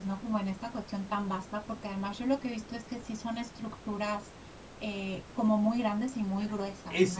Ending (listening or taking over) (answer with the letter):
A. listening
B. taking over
B